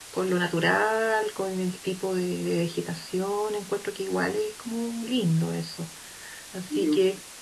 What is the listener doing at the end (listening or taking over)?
listening